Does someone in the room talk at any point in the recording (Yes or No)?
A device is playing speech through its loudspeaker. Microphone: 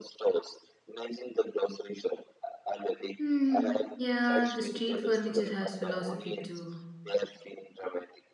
Yes